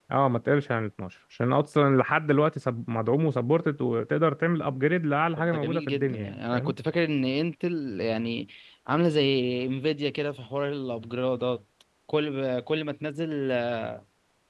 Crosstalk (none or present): present